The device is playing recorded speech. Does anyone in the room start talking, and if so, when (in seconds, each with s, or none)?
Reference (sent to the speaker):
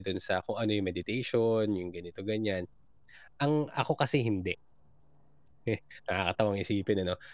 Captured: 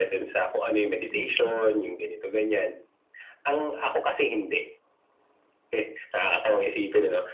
1.1 s